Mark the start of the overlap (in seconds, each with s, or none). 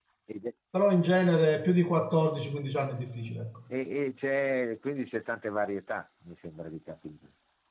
none